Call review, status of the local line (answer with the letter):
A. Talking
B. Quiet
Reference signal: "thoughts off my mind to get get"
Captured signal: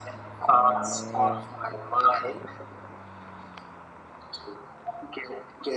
B